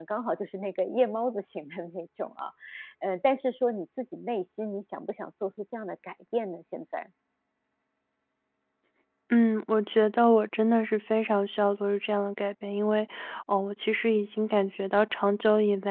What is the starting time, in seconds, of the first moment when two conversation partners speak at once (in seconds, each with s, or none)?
none